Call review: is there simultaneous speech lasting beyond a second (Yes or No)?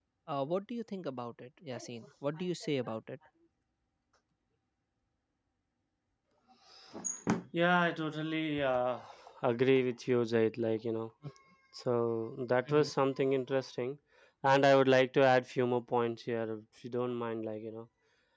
No